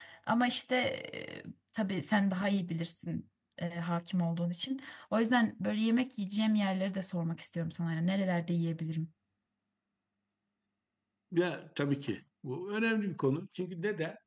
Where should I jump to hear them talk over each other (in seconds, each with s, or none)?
none